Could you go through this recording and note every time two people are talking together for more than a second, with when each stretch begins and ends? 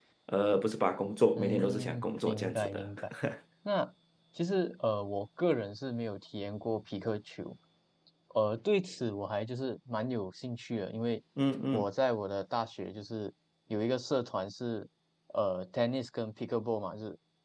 1.4-2.8

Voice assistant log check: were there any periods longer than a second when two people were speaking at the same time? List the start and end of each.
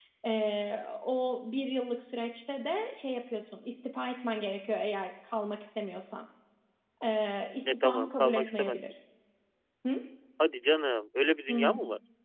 7.7-8.9

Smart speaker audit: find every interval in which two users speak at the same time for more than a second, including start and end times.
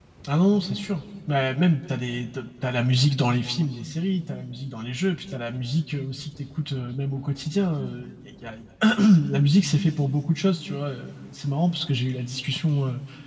none

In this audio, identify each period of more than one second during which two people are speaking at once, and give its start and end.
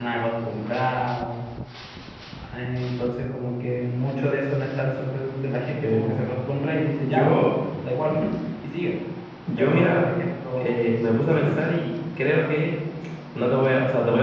none

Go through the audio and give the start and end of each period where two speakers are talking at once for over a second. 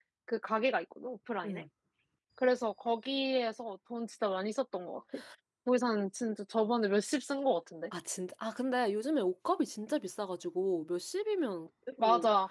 none

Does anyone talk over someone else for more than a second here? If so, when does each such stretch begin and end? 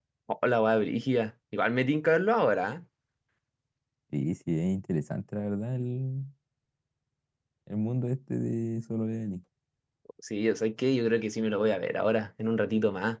none

